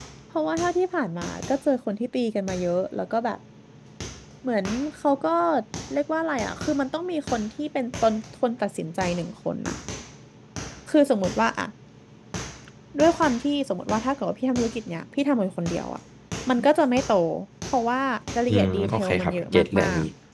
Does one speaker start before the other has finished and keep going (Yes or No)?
Yes